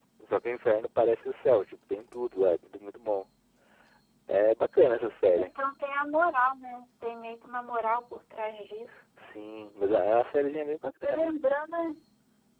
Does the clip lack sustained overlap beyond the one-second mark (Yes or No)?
Yes